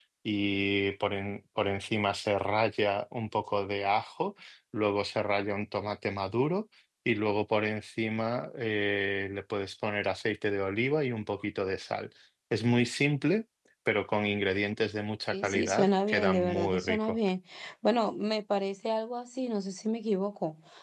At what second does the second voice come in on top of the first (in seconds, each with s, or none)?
15.3 s